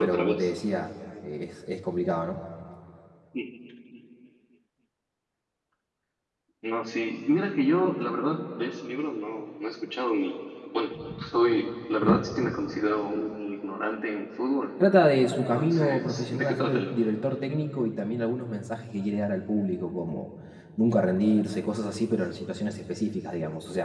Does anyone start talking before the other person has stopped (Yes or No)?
Yes